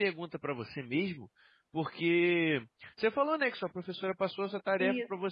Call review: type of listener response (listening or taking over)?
listening